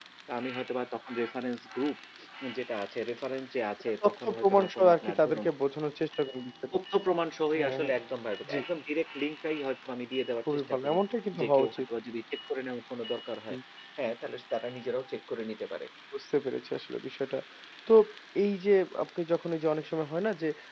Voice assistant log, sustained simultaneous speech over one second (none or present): present